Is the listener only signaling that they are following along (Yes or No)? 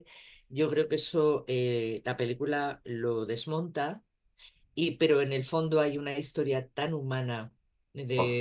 Yes